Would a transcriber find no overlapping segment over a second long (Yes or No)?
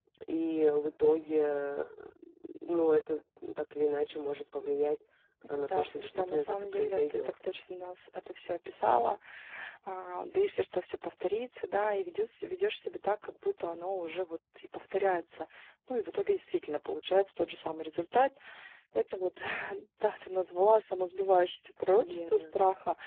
No